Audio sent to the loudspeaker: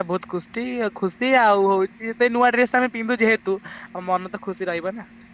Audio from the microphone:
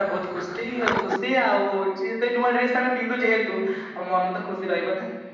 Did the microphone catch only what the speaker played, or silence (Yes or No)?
Yes